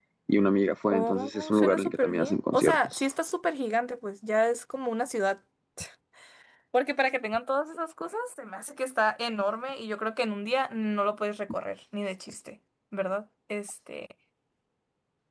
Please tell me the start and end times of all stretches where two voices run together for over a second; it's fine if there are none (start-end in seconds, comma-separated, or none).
0.9-3.0